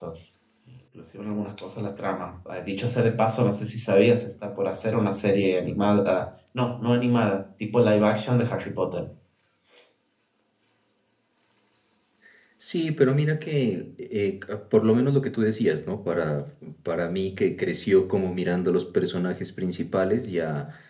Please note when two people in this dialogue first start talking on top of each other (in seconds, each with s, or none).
none